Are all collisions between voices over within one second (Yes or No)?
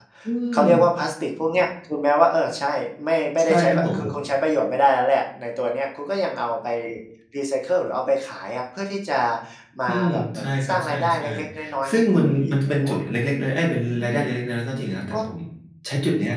No